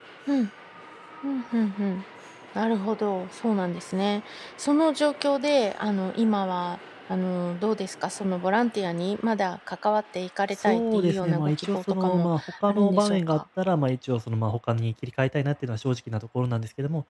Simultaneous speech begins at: 10.5 s

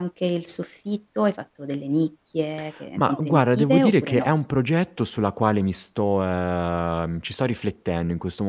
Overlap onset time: 3.0 s

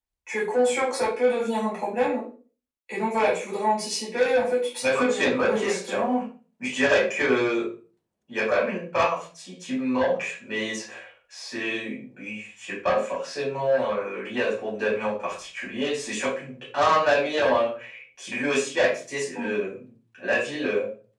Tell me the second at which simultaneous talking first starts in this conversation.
4.8 s

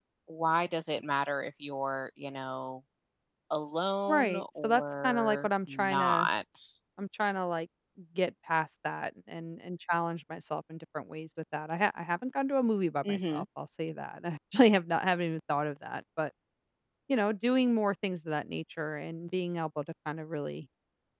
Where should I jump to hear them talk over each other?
4.1 s

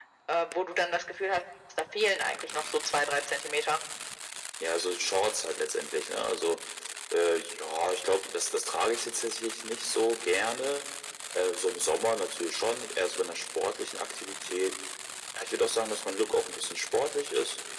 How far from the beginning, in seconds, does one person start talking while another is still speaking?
none

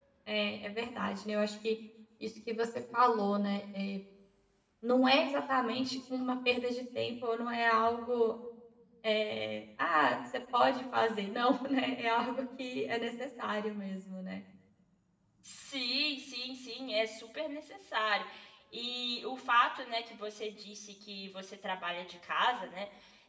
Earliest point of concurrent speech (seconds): none

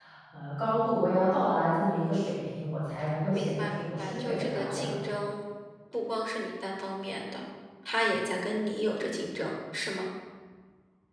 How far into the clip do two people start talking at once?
3.3 s

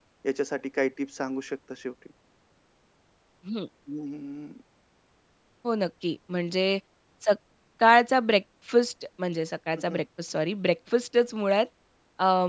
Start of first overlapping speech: none

